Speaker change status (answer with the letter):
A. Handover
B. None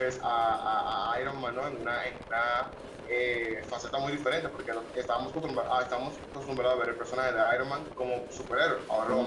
B